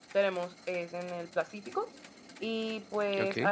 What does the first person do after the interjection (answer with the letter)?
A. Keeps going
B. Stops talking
A